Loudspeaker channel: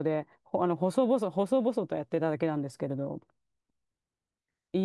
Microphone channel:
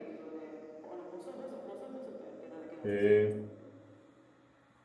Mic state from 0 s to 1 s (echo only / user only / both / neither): echo only